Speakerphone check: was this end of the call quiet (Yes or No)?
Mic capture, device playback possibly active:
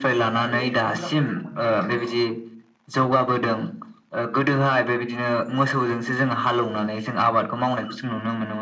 No